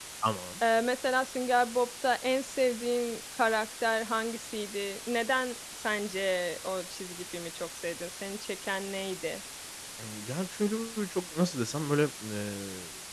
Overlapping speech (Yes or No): No